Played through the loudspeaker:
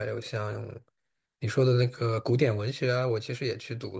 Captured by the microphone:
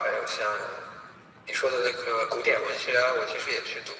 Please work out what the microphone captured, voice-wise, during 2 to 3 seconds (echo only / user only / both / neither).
echo only